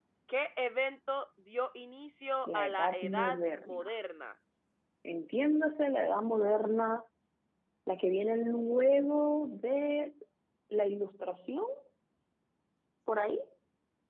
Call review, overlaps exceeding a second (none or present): present